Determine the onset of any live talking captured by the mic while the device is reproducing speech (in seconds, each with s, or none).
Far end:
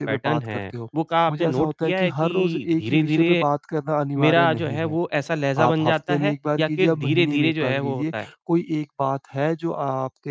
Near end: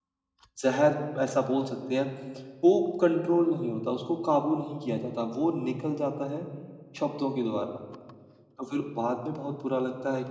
0.6 s